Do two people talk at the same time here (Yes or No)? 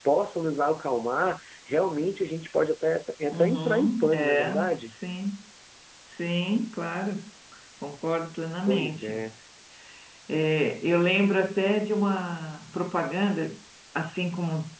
Yes